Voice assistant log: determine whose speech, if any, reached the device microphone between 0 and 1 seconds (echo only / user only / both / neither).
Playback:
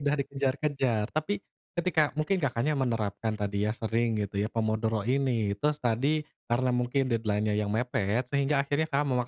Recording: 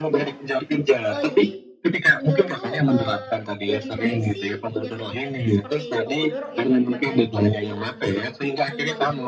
both